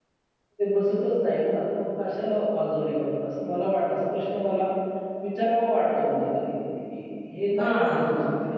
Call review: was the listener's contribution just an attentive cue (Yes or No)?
Yes